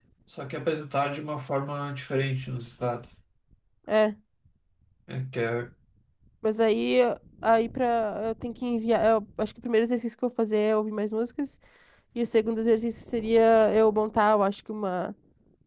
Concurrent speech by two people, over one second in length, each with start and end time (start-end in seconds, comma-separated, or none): none